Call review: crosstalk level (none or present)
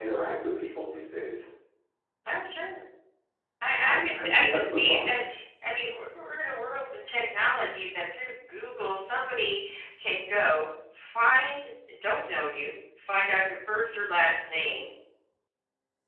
present